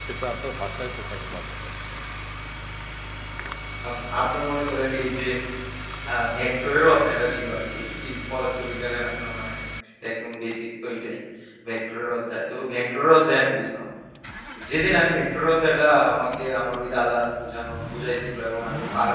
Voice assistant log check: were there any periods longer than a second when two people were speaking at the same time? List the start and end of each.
none

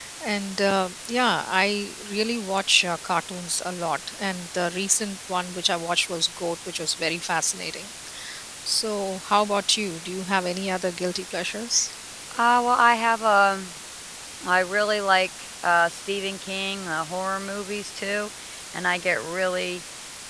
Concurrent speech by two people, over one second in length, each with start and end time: none

